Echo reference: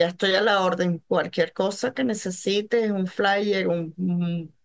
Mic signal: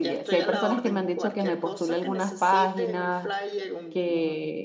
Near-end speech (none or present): present